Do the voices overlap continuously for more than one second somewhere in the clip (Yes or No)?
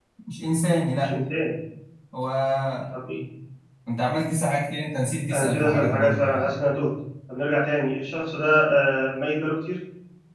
Yes